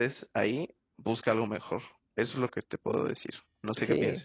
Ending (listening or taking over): taking over